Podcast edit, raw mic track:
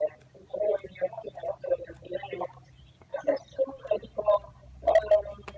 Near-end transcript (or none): none